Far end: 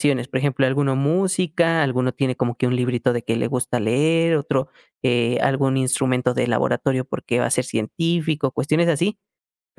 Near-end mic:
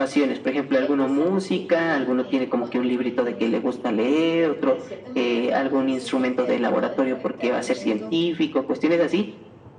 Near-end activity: present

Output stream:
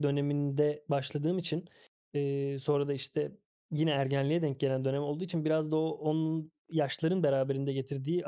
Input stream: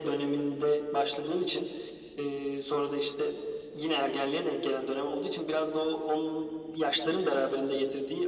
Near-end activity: none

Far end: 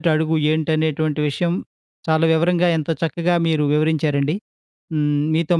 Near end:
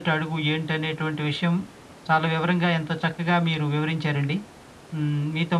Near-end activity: none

